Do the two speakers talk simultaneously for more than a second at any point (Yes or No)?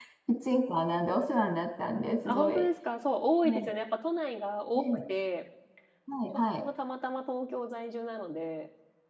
No